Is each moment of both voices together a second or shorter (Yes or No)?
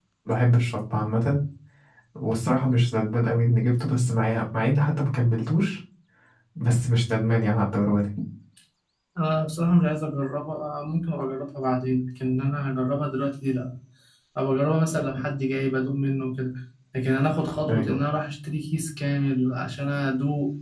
Yes